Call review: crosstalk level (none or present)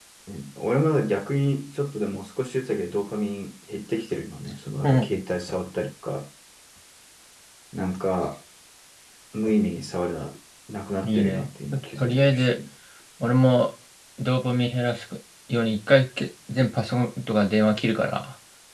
present